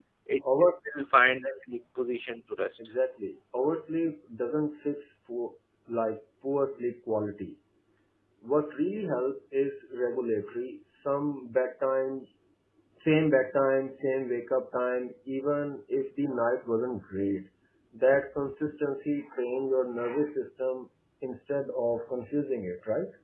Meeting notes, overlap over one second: none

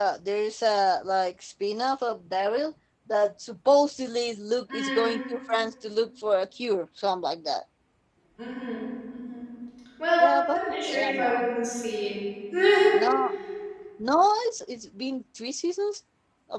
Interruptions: present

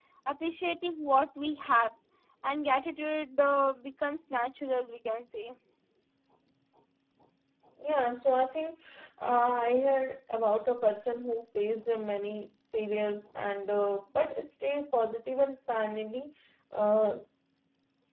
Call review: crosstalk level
none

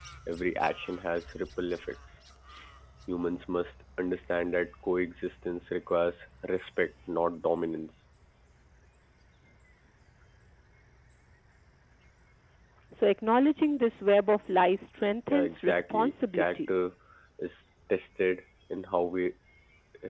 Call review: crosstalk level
present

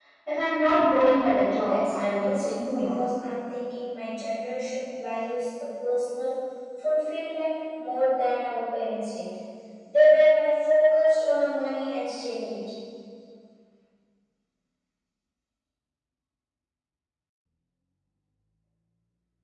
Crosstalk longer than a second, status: present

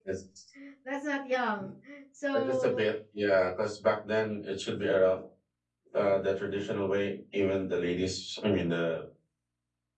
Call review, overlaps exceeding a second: none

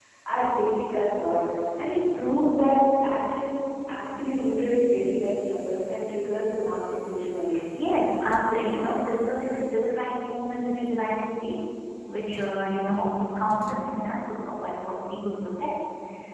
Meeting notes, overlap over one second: none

